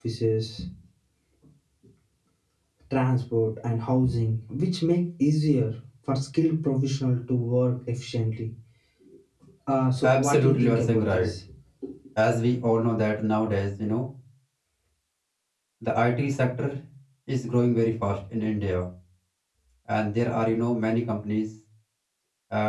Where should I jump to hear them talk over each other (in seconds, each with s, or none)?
10.0 s